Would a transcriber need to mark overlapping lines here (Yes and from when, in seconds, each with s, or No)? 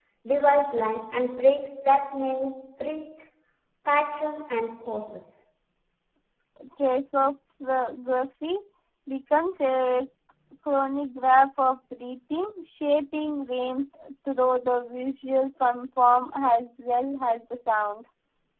No